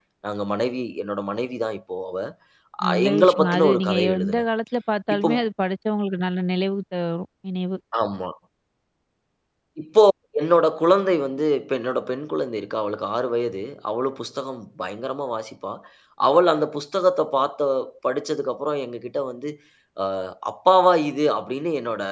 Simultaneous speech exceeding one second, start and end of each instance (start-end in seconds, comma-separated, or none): 2.9-4.4